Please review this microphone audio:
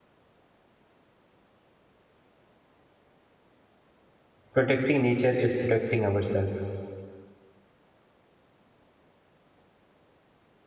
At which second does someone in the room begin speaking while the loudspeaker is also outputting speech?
4.5 s

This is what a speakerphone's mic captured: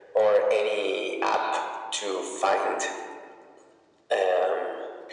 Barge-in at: none

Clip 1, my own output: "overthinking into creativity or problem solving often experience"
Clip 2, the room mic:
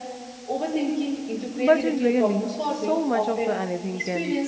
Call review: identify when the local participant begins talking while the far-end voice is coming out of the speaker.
1.6 s

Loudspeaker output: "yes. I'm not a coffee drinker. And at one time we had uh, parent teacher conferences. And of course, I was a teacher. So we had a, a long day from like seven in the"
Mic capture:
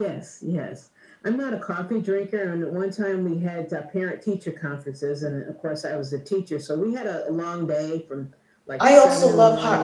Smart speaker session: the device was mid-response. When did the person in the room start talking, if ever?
8.8 s

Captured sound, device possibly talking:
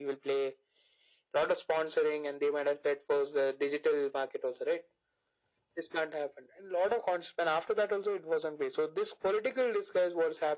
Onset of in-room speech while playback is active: none

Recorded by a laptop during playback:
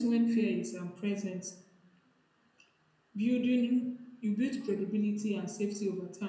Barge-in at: none

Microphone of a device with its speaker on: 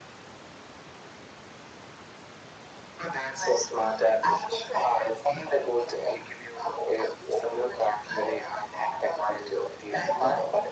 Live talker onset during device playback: none

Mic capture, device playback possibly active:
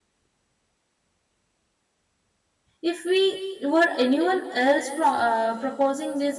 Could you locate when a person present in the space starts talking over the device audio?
2.8 s

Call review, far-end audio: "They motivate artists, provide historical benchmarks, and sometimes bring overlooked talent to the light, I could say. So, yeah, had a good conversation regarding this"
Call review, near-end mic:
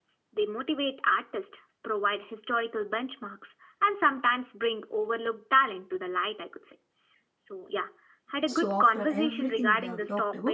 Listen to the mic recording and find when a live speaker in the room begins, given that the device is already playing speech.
8.5 s

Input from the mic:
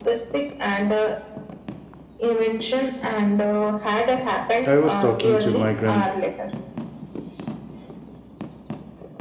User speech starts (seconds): 4.6 s

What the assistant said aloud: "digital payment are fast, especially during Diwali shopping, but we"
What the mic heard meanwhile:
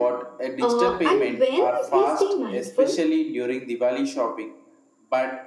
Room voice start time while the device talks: 0.6 s

